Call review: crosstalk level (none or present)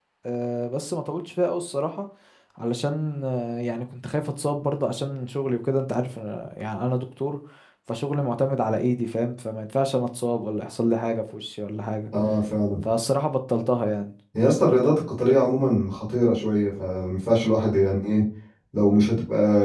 none